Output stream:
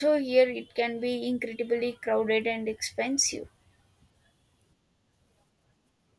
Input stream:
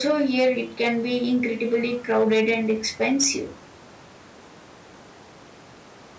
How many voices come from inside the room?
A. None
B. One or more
A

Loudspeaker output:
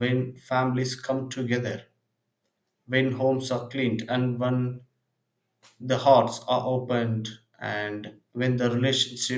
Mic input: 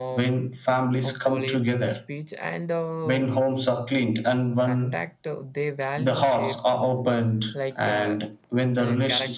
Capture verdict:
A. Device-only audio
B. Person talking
B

